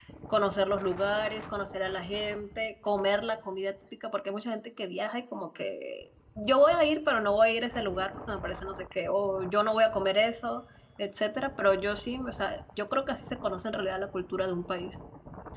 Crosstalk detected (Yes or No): No